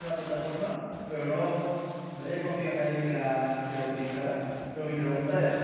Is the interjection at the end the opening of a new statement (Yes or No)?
No